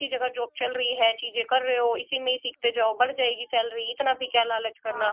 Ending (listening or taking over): taking over